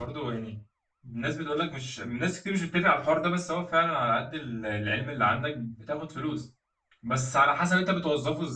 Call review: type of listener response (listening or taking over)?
listening